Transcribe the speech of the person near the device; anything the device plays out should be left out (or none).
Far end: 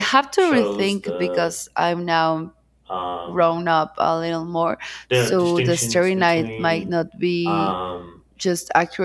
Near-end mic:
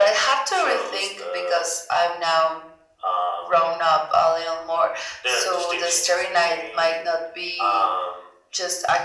none